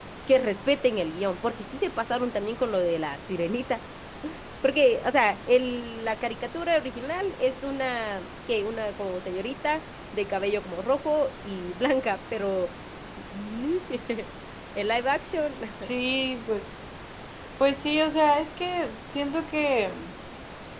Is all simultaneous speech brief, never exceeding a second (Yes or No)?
Yes